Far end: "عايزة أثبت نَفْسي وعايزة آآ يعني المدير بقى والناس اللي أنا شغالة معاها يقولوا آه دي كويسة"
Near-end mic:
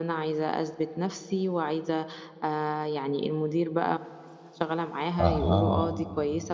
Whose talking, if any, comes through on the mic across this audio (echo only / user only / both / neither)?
both